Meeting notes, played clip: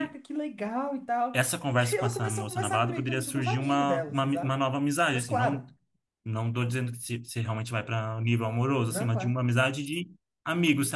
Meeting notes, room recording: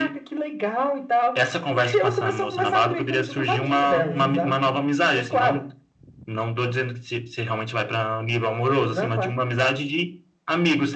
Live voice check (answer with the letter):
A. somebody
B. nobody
A